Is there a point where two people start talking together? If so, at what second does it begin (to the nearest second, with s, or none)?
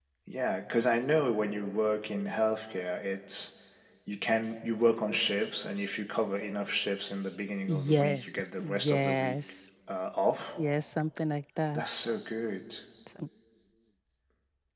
8 s